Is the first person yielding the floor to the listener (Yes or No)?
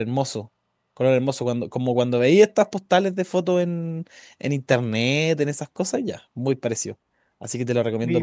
Yes